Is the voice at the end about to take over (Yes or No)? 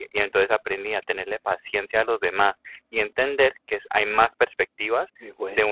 No